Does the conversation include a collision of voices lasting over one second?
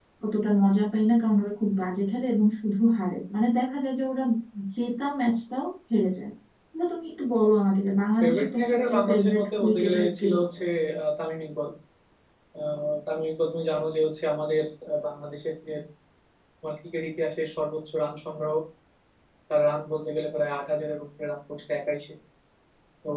Yes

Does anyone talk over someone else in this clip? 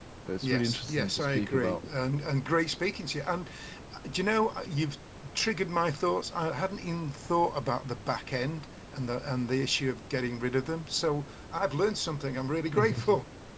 Yes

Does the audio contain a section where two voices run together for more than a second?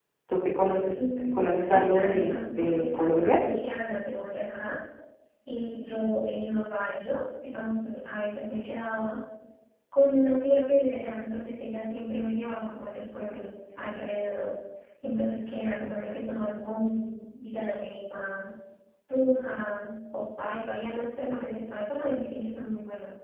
Yes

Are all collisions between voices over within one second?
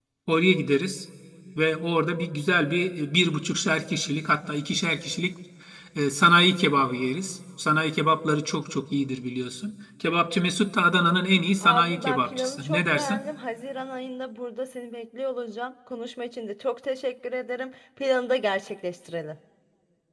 No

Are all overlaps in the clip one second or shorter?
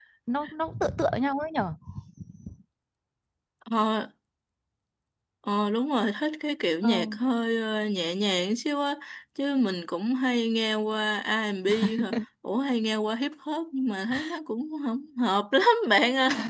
Yes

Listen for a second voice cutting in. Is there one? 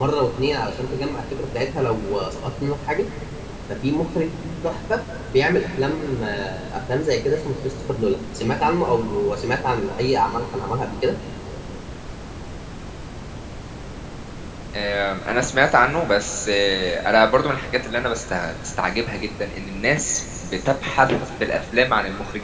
No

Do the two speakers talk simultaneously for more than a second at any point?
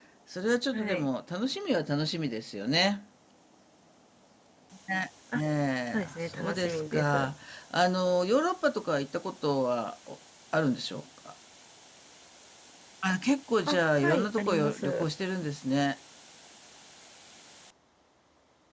Yes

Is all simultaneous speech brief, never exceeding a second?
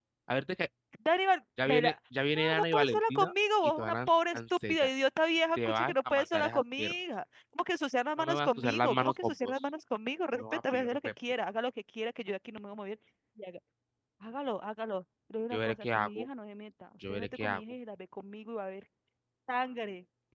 No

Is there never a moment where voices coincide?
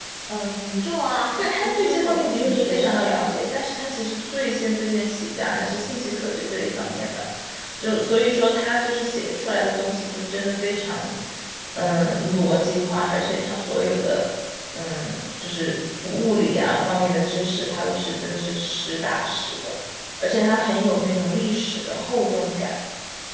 No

